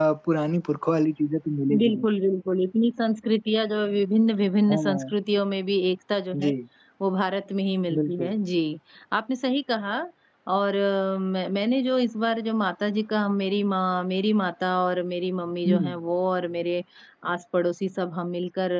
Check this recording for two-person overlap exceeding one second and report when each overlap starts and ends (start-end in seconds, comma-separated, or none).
none